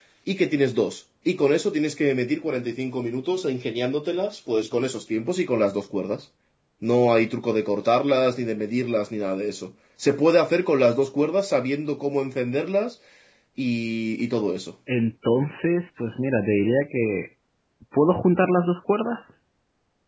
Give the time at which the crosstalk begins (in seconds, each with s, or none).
none